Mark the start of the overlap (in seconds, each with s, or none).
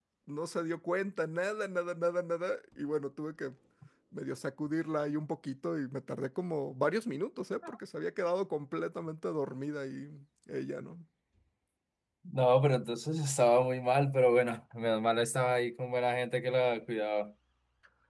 none